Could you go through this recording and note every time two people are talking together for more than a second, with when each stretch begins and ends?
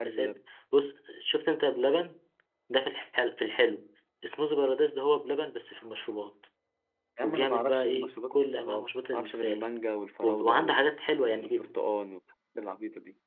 7.2-9.7

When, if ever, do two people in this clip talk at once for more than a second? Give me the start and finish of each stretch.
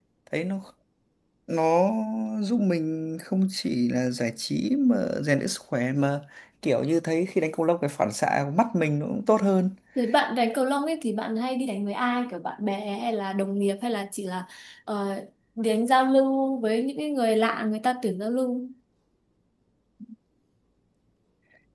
none

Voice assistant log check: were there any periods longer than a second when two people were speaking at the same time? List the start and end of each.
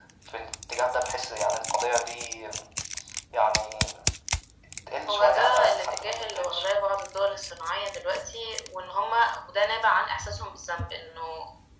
5.1-6.7

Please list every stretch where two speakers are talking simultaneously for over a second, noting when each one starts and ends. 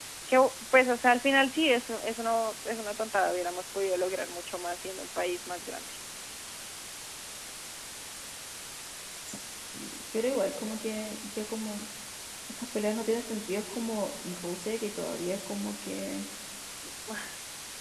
none

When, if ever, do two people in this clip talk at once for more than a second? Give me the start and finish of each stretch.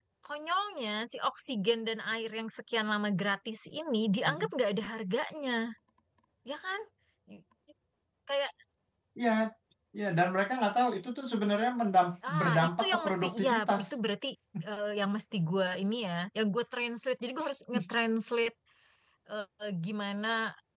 12.3-13.8

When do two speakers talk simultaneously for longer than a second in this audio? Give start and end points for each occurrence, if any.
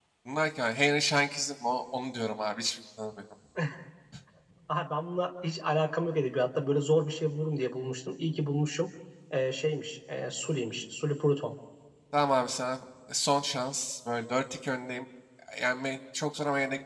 none

